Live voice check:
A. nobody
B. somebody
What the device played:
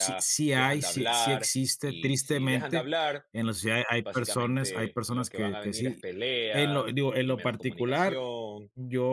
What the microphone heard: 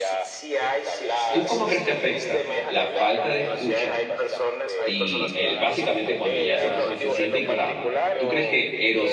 B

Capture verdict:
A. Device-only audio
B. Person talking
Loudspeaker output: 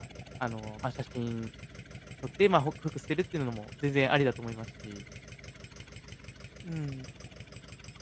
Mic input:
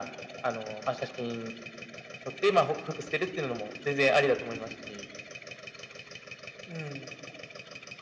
A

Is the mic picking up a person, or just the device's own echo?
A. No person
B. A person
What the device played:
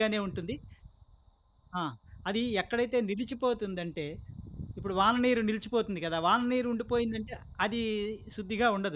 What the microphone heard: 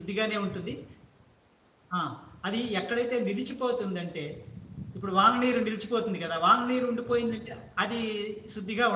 A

